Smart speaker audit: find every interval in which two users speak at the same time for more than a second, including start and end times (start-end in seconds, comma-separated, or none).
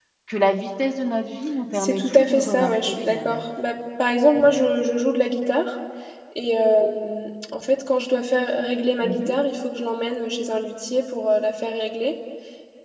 1.7-3.4